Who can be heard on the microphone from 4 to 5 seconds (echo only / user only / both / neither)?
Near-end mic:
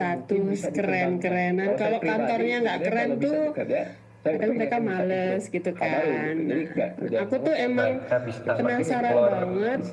echo only